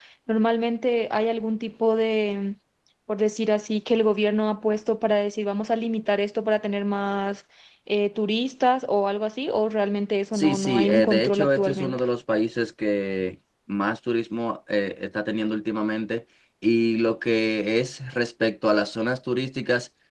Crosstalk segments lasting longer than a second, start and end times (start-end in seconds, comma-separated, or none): 10.3-12.0